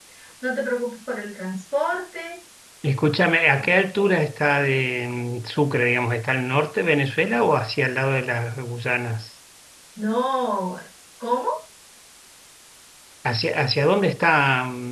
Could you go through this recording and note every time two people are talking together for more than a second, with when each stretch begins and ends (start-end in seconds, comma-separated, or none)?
none